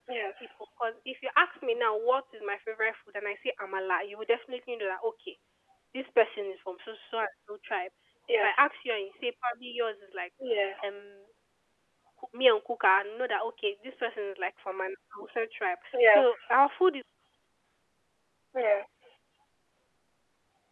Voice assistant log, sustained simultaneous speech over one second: none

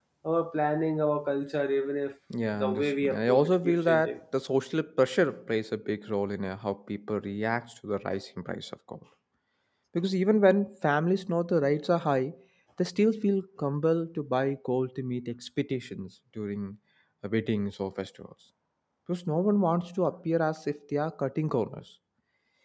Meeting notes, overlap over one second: present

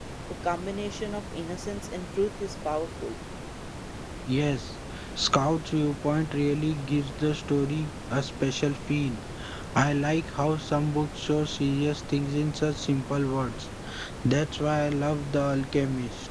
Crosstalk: none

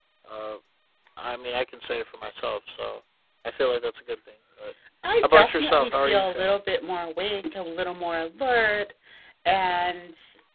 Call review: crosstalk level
present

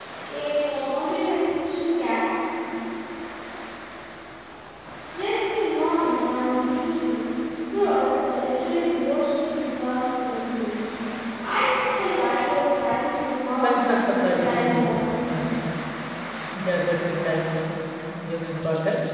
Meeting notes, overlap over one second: present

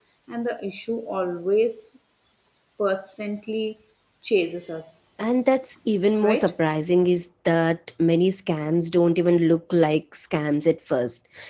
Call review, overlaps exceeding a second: none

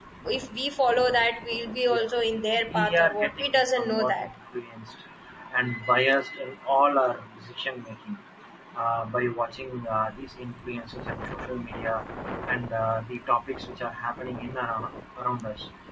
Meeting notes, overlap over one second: present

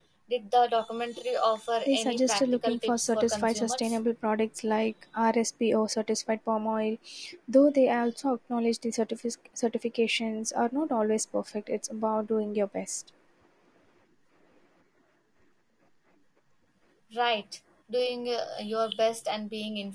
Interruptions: present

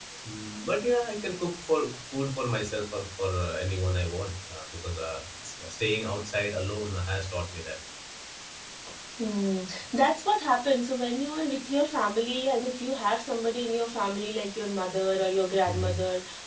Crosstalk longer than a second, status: none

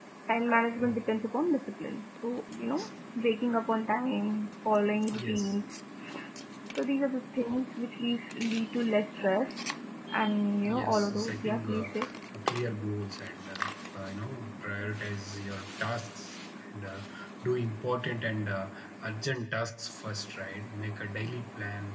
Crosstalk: present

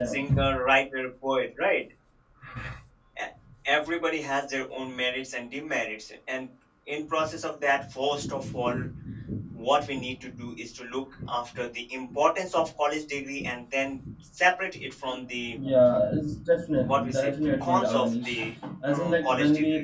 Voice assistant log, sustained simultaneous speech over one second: present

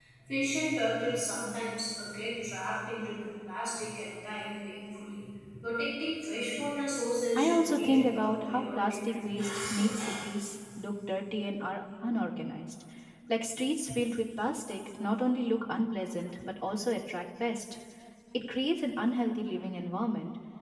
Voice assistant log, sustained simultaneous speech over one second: present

